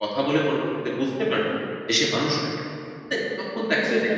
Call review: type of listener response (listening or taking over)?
listening